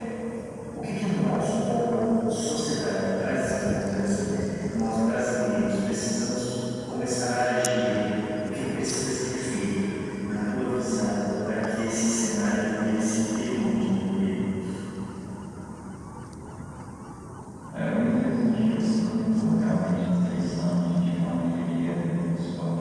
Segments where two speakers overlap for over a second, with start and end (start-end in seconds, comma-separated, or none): none